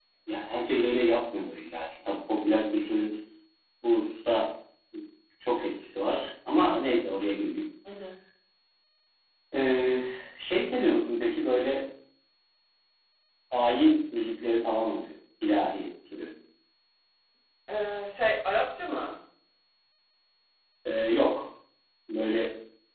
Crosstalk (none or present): none